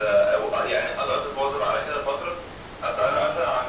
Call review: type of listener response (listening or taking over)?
listening